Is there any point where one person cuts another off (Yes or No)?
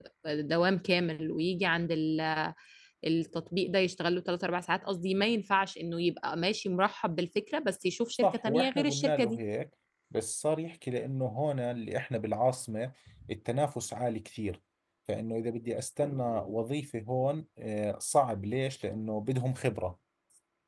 Yes